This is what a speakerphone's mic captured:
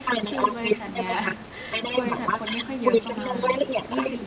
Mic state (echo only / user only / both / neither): both